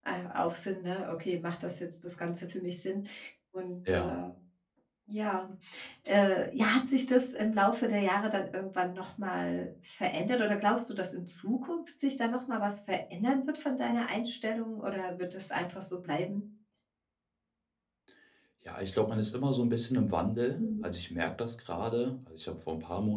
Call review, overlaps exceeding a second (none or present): none